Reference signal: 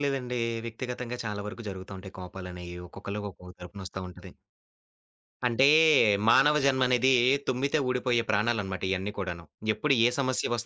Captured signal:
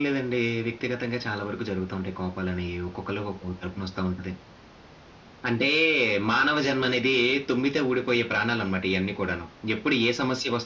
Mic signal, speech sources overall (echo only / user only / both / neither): echo only